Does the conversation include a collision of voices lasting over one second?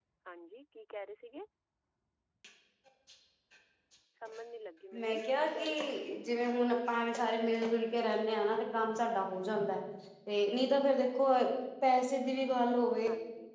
Yes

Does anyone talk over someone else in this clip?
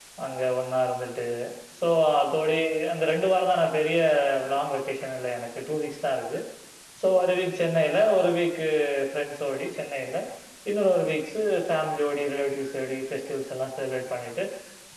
No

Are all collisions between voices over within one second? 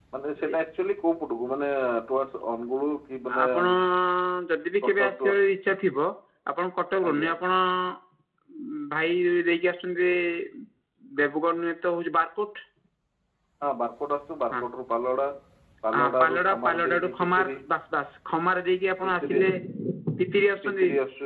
No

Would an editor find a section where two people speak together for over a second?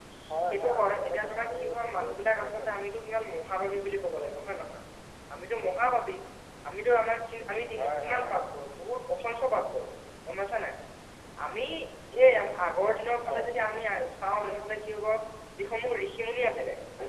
Yes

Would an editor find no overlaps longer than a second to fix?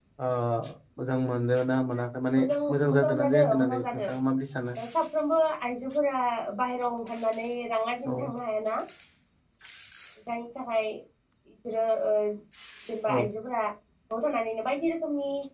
No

